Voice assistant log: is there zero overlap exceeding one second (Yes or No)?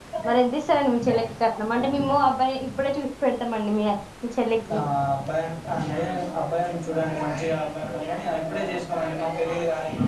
Yes